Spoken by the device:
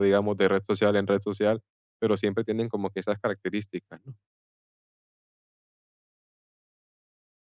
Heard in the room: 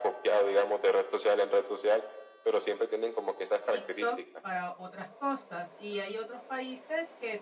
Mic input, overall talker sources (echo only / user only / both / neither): both